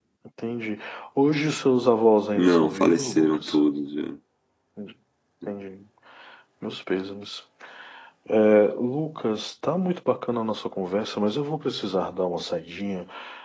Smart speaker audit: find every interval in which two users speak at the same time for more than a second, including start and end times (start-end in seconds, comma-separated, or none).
2.4-3.5